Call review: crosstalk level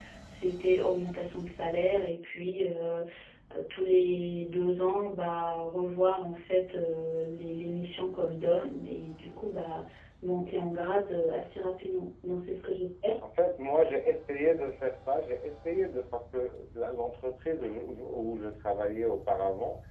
none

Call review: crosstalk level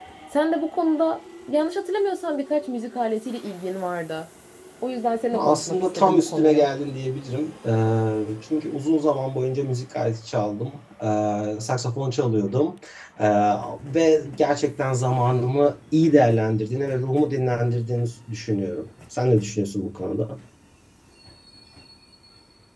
present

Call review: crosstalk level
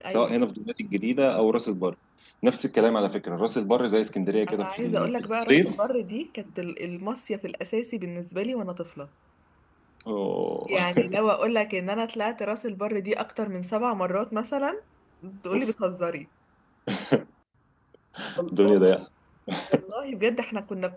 present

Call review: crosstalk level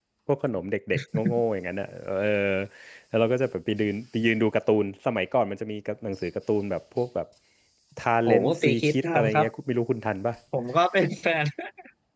present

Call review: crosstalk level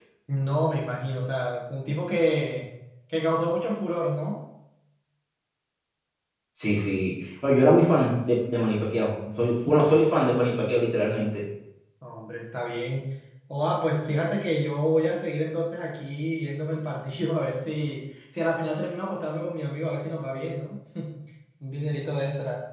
none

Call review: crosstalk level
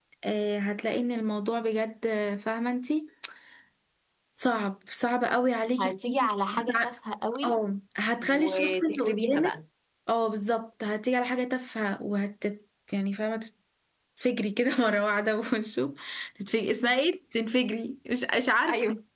present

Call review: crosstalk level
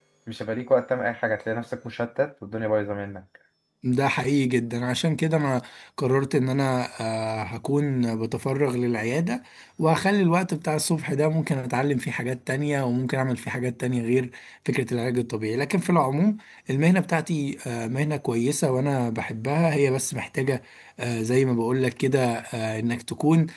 none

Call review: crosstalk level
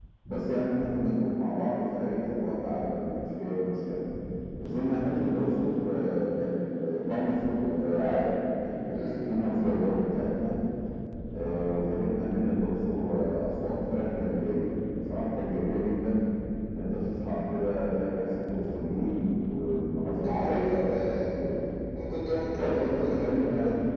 present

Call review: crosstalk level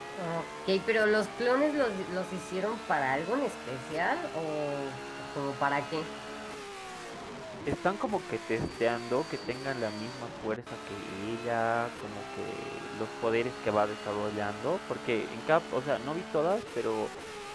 none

